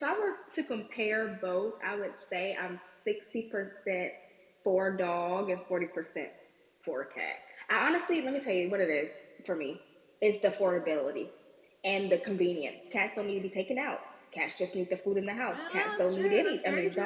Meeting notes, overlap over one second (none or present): present